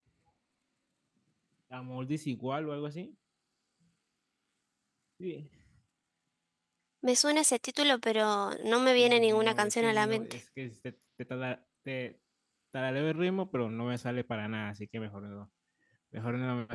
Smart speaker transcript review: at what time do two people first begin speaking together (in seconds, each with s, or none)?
9.0 s